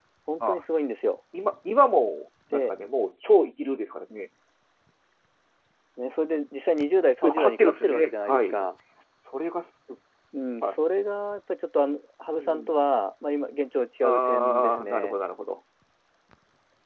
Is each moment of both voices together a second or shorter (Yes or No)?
No